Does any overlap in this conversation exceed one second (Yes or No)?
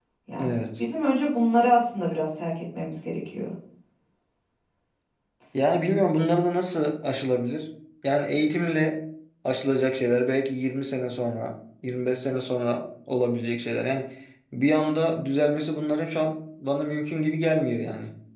No